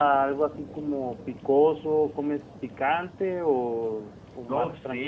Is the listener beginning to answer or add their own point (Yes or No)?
Yes